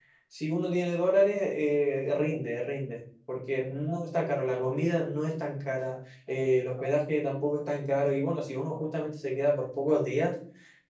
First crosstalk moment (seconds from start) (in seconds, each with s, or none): none